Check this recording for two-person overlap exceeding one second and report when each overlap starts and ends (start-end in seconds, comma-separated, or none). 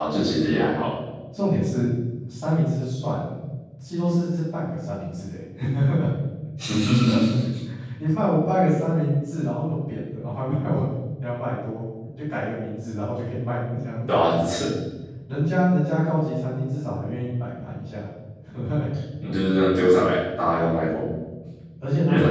none